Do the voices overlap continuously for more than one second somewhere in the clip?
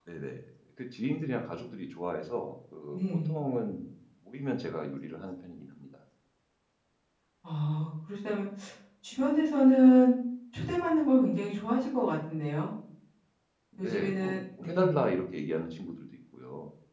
Yes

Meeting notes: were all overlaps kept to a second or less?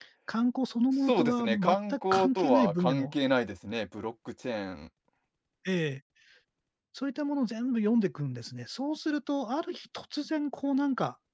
No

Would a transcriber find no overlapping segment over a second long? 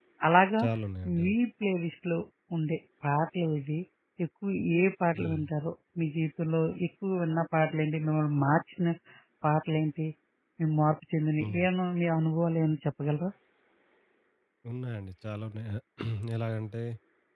Yes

